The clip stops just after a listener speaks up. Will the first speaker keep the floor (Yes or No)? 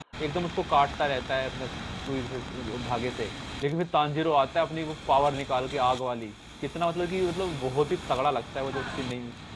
No